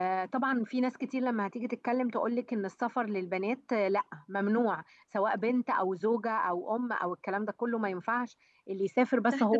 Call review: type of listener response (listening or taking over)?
taking over